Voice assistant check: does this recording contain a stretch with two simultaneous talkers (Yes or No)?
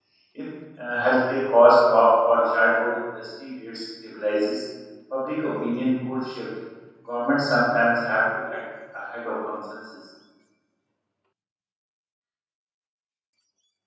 No